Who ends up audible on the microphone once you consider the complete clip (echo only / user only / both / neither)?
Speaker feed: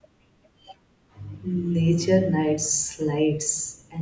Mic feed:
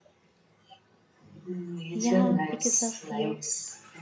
both